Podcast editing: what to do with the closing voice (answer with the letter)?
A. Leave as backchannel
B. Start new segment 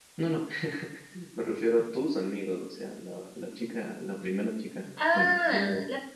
B